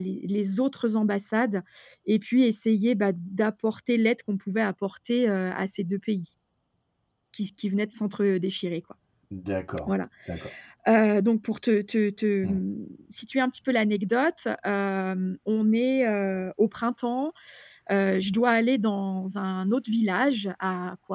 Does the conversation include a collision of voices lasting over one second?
No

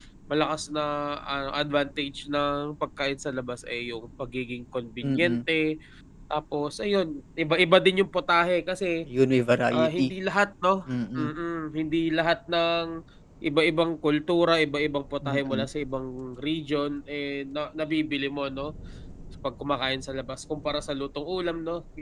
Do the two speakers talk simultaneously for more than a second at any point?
No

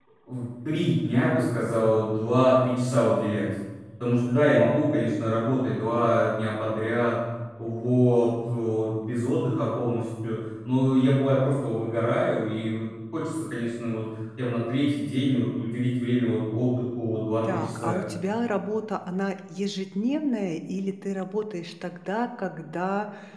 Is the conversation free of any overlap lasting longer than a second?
Yes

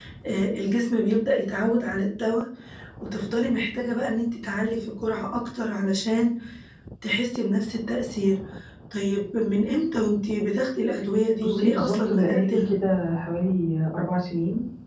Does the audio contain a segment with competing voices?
Yes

